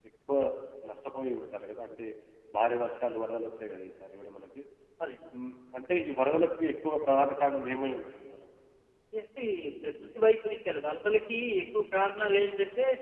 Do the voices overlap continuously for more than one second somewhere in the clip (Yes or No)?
No